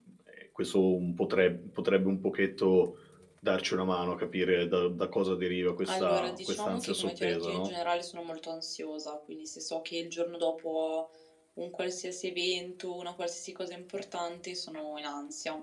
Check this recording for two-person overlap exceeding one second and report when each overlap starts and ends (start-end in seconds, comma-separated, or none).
5.8-7.7